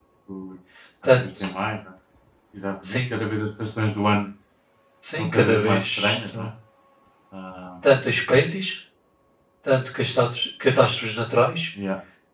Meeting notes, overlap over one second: present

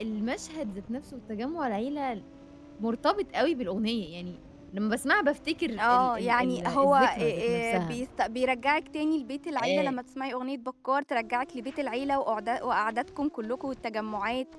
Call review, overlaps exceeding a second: present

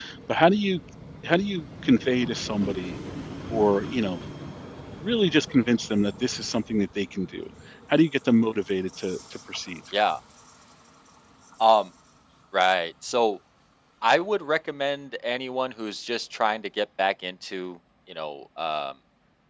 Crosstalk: none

